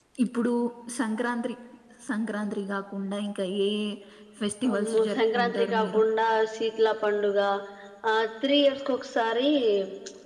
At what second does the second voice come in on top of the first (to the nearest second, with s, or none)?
5 s